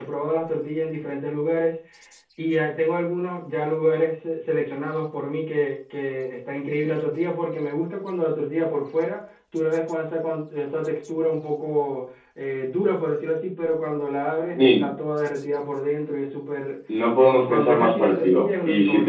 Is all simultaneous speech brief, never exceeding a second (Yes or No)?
No